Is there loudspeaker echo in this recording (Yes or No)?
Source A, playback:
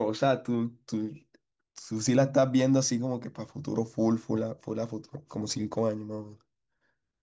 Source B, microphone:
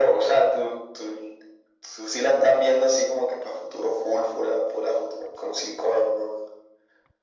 Yes